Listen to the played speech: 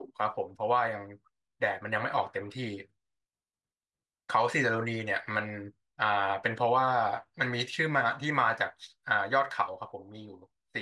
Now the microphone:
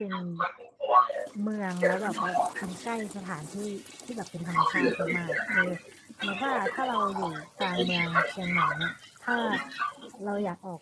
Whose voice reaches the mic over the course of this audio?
both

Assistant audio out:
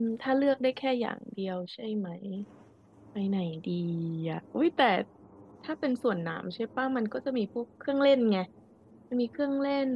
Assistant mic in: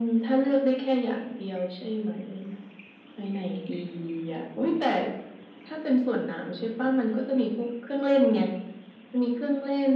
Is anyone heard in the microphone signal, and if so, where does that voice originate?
echo only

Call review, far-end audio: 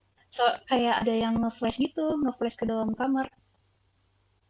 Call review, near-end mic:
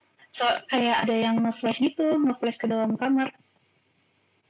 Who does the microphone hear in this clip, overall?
echo only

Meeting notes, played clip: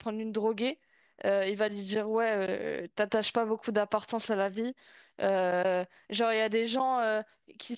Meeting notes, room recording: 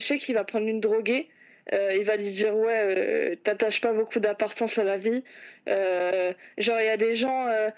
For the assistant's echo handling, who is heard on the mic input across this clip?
echo only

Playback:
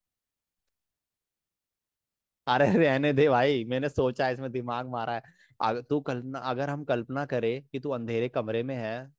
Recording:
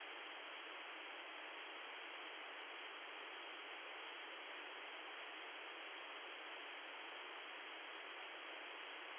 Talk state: neither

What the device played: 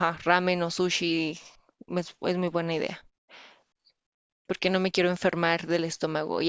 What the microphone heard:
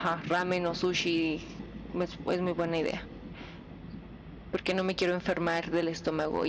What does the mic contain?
echo only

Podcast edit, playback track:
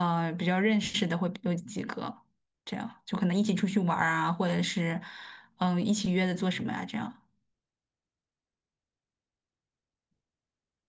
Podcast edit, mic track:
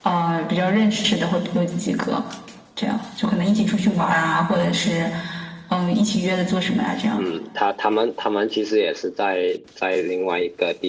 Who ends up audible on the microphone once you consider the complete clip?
both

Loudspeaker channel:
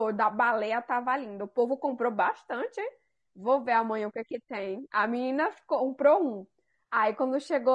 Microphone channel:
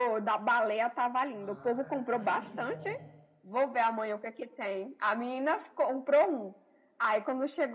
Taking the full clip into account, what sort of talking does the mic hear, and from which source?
both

